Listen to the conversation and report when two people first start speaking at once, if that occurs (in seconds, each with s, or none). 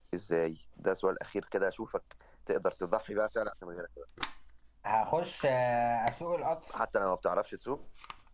none